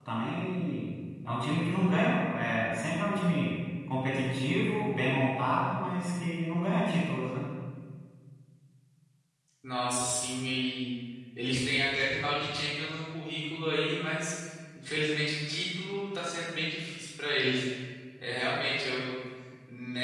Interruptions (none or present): none